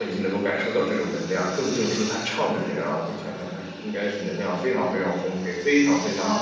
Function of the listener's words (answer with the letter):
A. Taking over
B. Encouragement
A